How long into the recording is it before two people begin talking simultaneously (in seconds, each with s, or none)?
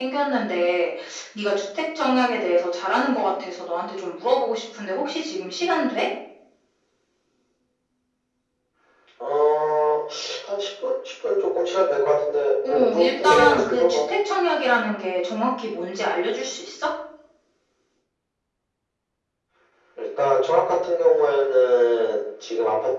12.6 s